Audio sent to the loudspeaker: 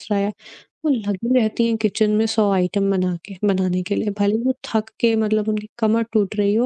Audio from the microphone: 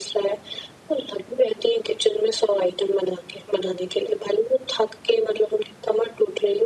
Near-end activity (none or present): none